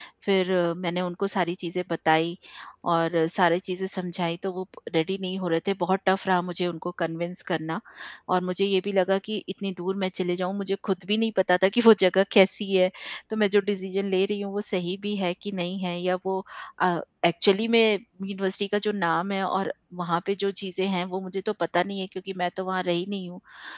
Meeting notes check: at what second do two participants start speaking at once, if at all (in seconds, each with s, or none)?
none